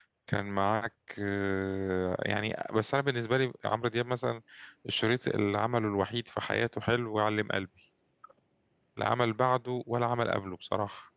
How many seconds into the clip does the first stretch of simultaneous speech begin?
none

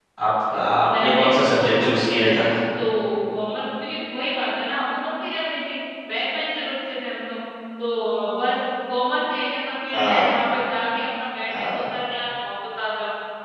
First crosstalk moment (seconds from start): 1.0 s

